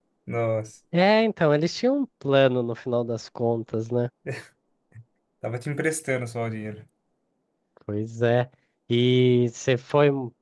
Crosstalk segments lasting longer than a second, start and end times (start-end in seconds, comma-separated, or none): none